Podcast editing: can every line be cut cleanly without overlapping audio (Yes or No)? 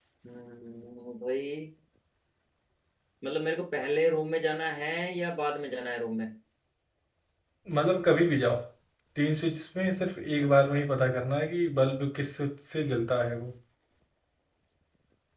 Yes